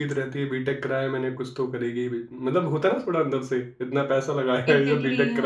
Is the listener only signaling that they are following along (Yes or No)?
No